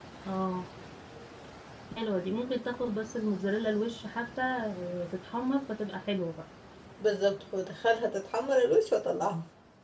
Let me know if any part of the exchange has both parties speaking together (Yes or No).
No